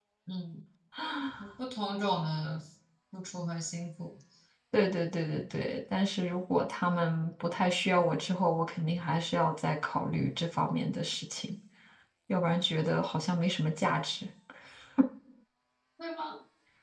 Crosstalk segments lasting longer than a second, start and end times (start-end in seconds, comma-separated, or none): none